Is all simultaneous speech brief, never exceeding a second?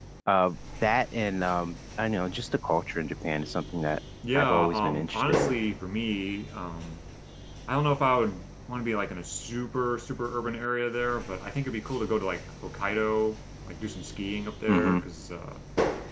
No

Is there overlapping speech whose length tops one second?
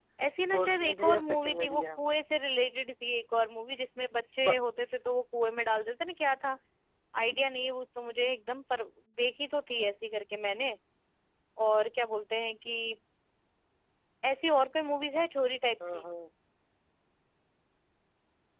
Yes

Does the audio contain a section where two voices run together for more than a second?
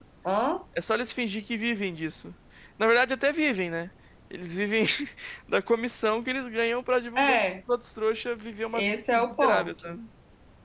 Yes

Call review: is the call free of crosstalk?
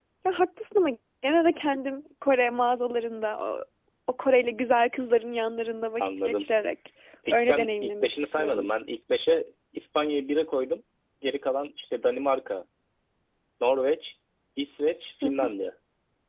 No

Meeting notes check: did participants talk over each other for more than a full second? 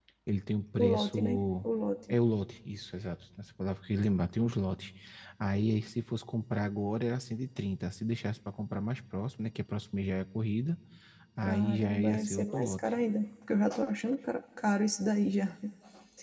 Yes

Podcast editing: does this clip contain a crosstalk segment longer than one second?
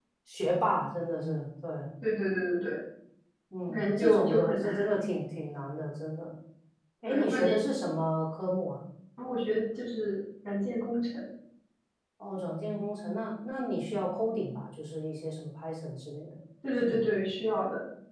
Yes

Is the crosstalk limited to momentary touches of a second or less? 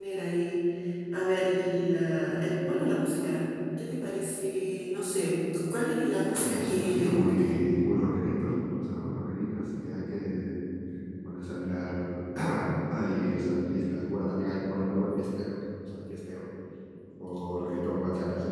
No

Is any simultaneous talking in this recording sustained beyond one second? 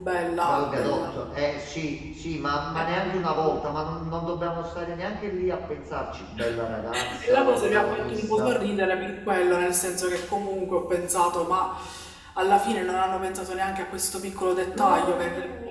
Yes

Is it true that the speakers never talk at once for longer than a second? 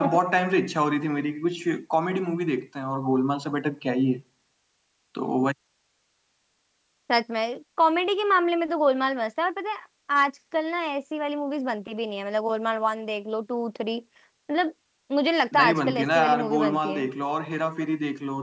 No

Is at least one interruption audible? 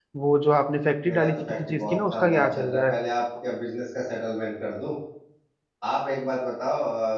Yes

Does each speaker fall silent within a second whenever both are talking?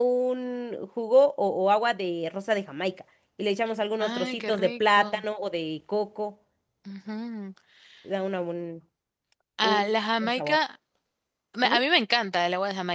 No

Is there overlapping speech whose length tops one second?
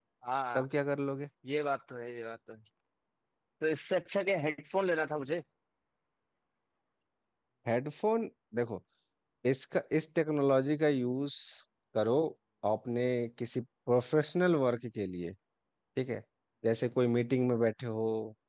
No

